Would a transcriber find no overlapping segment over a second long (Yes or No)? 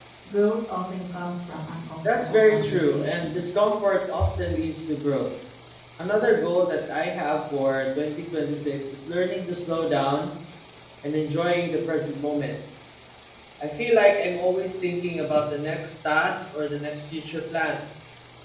No